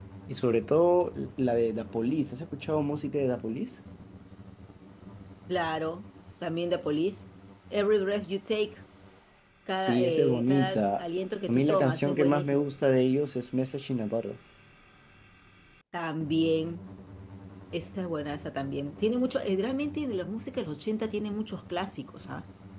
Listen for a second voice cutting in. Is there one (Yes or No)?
Yes